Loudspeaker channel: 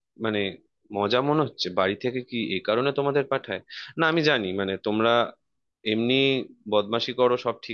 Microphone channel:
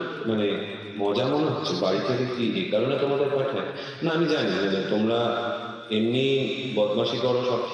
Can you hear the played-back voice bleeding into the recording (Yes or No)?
Yes